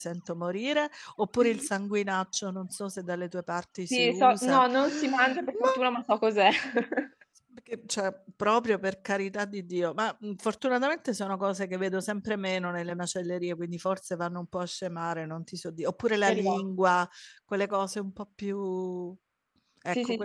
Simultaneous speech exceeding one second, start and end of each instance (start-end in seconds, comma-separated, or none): 3.9-5.7